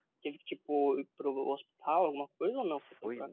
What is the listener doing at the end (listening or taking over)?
taking over